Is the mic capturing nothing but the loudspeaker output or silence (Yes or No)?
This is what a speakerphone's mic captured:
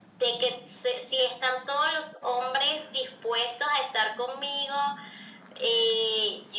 Yes